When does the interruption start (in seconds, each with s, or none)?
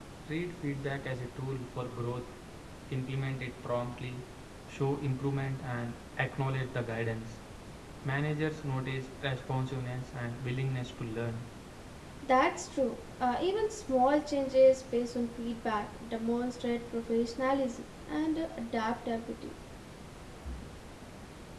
none